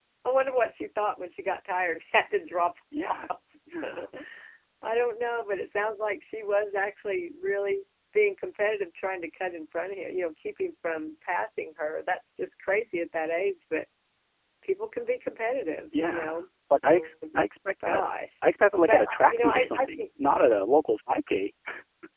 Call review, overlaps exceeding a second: present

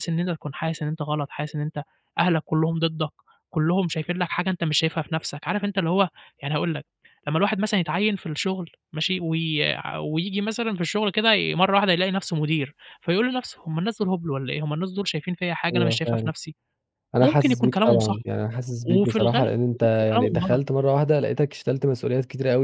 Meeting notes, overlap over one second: present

